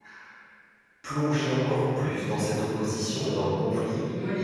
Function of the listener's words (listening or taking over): listening